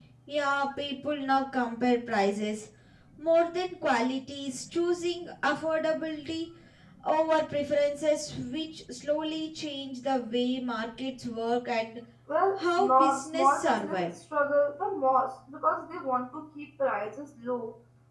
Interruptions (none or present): present